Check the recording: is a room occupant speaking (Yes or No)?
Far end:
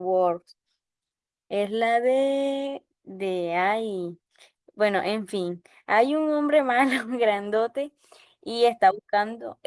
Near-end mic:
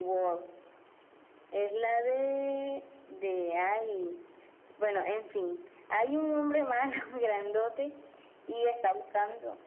No